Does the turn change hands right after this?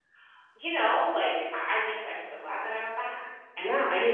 Yes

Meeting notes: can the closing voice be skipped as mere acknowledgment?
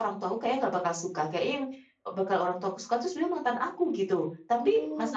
Yes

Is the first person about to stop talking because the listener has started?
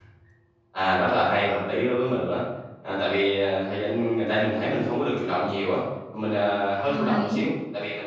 No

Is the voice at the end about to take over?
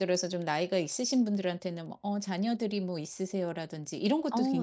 No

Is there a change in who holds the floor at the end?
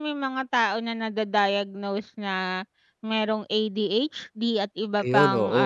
No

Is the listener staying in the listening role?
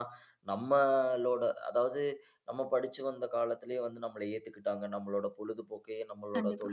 Yes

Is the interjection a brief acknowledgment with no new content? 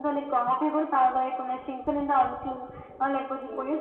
Yes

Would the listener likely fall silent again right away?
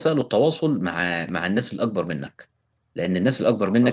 Yes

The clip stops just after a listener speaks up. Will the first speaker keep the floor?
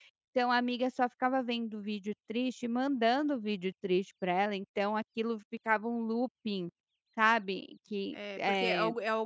No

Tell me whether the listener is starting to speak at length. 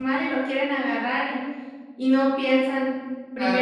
No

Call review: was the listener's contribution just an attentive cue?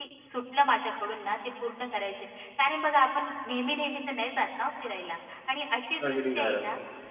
Yes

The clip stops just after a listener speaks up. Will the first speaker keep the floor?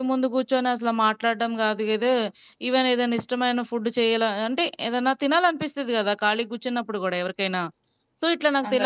Yes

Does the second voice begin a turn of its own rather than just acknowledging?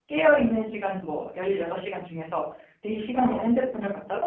No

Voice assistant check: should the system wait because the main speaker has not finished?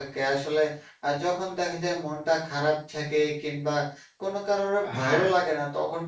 Yes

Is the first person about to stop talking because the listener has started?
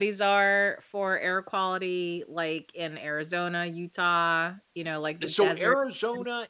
Yes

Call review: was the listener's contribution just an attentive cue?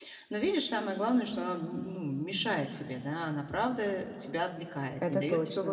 Yes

